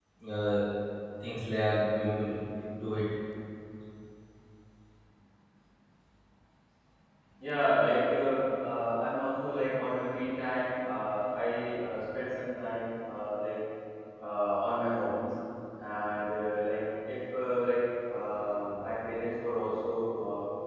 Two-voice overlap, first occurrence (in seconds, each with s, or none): none